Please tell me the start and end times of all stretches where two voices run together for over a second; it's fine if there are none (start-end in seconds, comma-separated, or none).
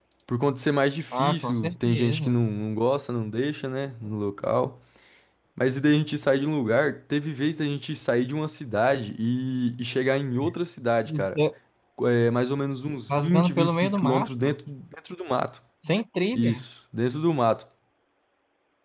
1.1-2.4, 13.2-14.6